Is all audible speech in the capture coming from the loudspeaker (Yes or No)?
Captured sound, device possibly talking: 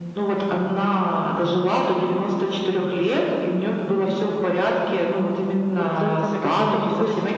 No